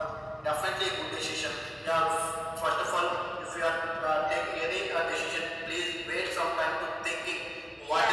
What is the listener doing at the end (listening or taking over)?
taking over